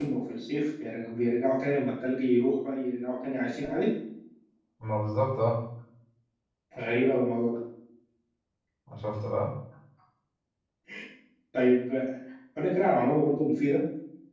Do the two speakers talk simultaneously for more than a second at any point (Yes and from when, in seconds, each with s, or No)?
No